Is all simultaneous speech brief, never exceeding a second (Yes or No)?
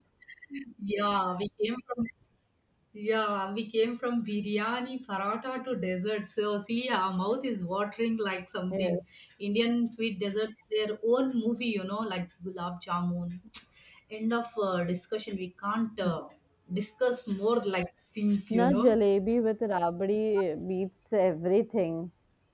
Yes